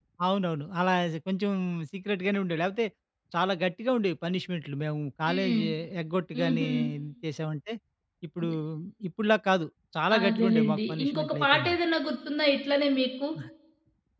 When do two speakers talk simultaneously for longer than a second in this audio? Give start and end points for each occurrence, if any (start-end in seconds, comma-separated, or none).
10.2-11.7